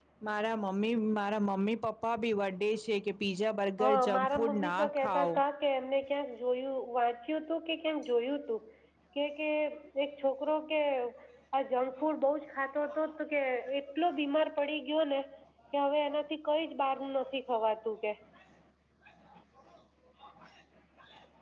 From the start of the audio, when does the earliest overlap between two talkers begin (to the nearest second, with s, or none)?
4 s